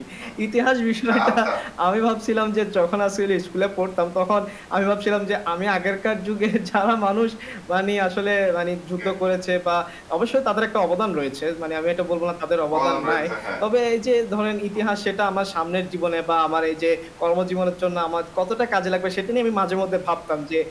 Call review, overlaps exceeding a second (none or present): none